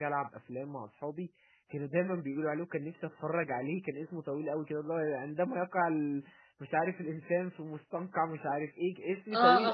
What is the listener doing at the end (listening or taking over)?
taking over